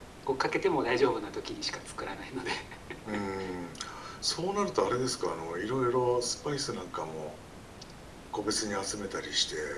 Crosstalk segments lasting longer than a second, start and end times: none

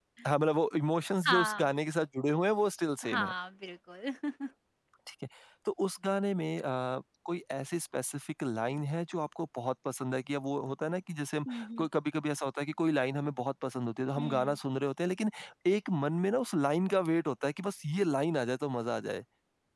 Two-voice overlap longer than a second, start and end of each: none

